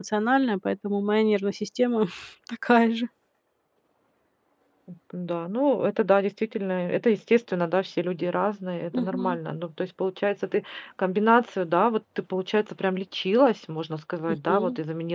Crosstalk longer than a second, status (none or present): none